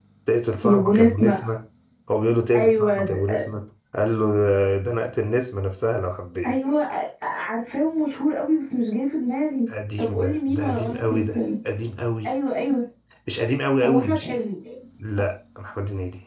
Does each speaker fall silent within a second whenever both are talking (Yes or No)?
No